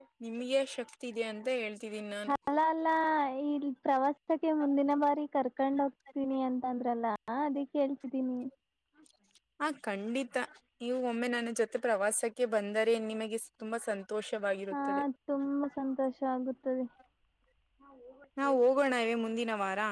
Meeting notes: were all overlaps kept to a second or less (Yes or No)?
Yes